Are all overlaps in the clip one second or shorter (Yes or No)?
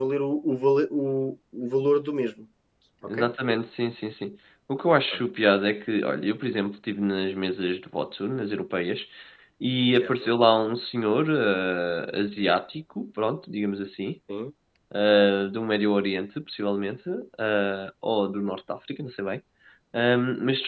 Yes